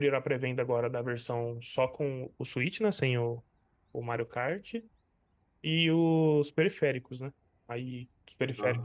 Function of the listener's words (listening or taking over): listening